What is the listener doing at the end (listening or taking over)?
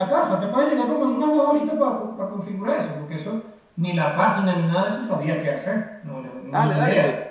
taking over